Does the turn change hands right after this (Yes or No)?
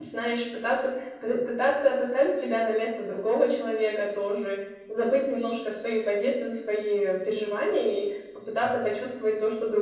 No